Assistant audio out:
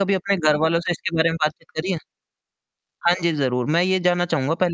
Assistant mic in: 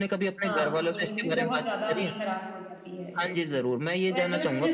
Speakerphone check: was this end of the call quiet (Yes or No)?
No